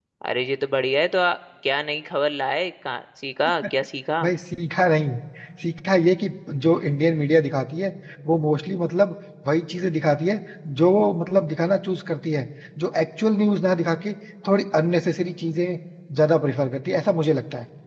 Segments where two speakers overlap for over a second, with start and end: none

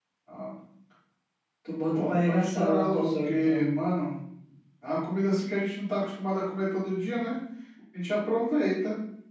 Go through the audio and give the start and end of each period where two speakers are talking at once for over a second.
1.9-3.6

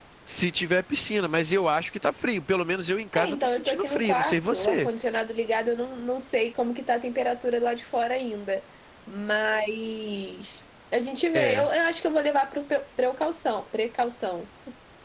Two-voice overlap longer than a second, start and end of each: 3.1-4.9

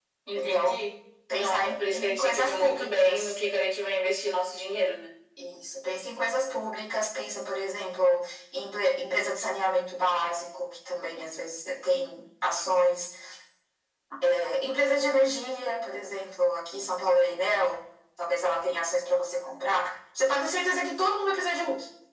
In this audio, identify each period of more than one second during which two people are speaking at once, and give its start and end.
1.3-3.4

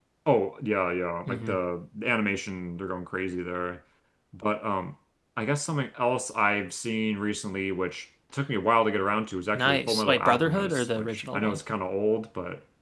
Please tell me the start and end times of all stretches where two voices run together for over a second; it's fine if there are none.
9.5-11.6

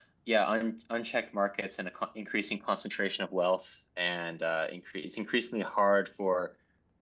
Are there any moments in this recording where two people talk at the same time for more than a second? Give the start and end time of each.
none

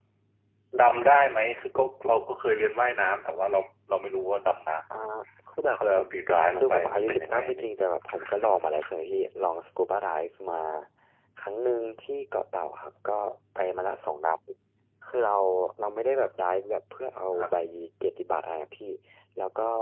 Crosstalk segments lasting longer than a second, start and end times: 6.5-7.8

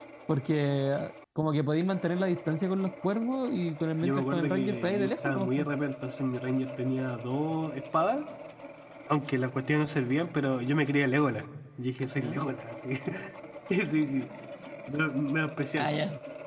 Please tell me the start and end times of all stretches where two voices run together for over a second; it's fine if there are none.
4.0-5.7

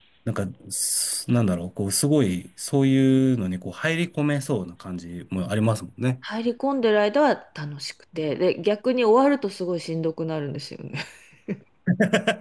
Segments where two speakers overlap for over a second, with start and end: none

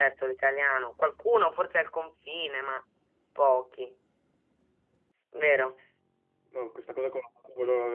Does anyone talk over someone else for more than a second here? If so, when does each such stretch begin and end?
none

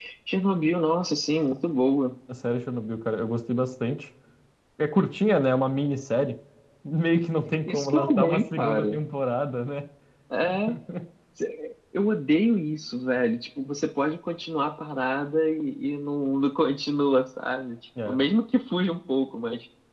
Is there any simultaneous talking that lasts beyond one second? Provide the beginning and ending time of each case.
7.7-8.9

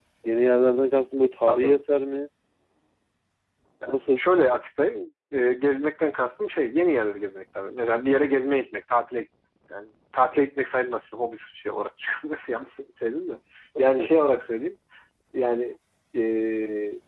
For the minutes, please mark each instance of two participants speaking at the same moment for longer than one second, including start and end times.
none

